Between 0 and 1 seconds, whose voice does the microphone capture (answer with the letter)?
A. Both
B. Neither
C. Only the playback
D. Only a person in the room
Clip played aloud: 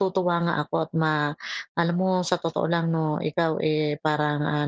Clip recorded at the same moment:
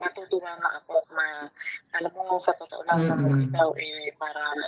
C